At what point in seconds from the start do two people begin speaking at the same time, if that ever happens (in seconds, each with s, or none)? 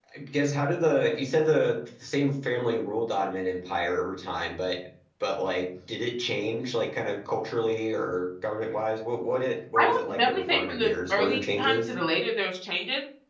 9.8 s